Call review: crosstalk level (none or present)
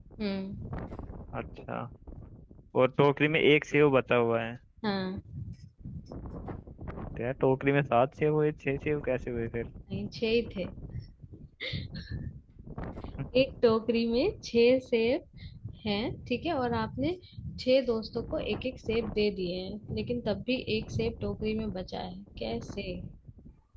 none